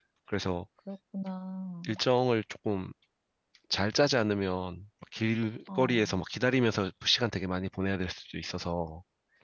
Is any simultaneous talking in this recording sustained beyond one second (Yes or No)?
No